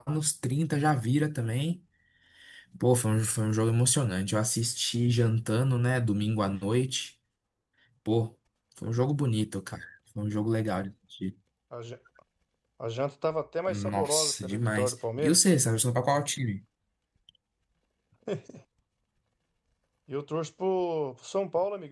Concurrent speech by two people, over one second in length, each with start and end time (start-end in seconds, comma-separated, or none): 13.7-15.4